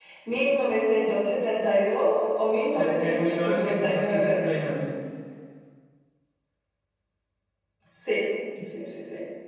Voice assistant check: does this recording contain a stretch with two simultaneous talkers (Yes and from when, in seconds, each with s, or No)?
Yes, from 2.8 s